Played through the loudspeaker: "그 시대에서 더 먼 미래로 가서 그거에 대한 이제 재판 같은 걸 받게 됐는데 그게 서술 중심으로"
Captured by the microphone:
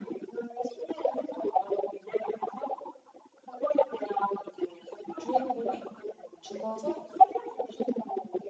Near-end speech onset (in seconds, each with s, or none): 5.2 s